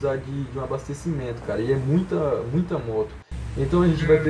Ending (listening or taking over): listening